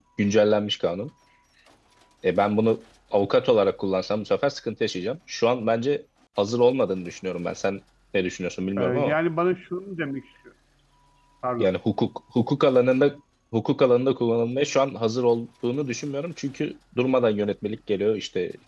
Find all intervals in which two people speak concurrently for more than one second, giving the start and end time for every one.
none

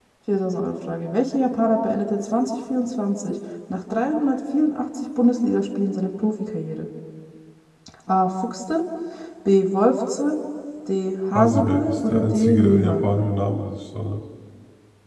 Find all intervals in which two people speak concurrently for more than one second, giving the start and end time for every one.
11.3-12.9

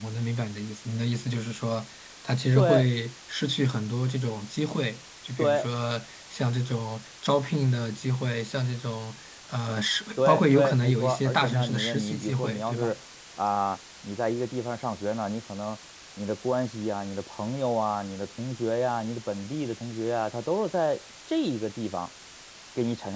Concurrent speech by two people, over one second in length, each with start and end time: 10.2-12.9

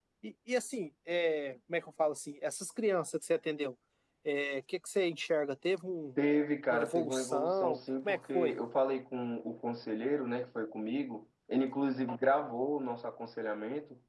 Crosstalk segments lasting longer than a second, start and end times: 6.7-8.6

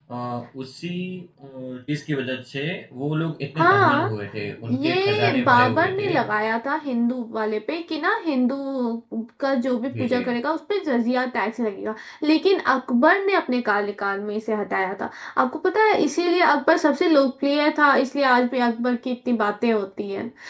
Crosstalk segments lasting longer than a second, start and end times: 4.8-6.2

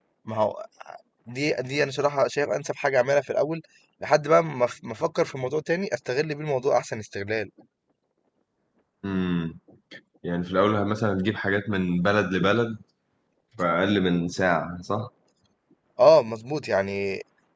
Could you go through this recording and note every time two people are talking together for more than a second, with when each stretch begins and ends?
none

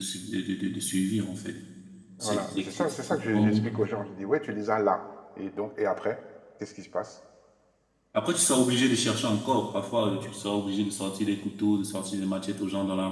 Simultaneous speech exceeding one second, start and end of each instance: 2.2-3.6

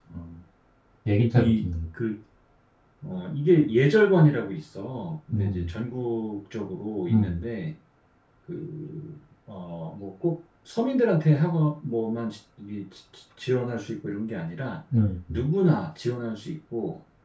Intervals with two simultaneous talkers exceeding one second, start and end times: none

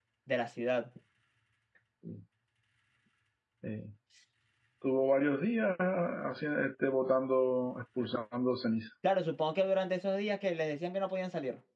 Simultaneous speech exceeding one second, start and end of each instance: none

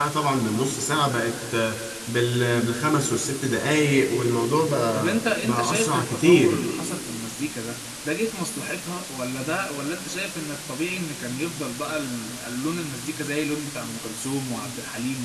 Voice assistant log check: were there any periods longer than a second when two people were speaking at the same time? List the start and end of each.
4.9-6.6

